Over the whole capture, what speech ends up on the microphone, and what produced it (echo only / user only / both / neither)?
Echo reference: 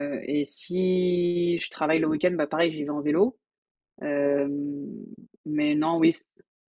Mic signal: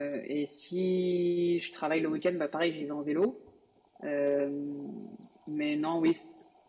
echo only